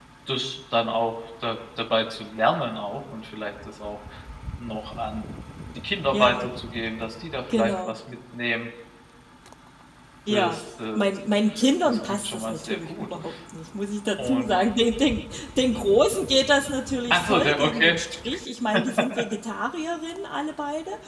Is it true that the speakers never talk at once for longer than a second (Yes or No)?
No